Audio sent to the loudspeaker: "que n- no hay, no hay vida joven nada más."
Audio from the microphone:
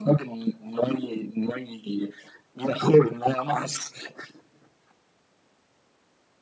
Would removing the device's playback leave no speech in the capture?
Yes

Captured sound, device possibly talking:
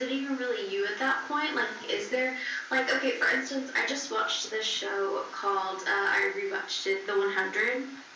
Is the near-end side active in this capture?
No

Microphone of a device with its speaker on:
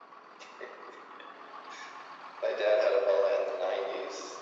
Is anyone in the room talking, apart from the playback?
No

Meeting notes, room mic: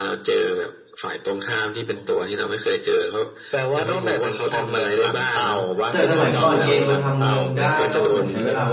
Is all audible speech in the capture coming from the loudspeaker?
No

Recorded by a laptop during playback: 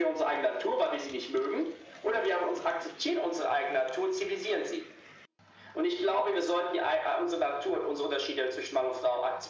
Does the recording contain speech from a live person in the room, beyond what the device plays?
No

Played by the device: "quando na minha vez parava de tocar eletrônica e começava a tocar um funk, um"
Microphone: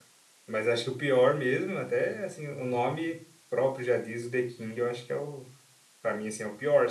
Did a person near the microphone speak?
Yes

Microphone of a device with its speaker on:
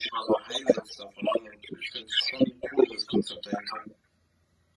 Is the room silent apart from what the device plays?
Yes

